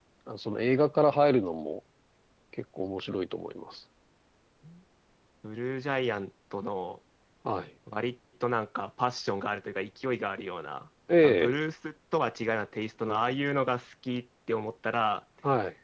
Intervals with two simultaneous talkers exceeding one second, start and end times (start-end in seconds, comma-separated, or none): none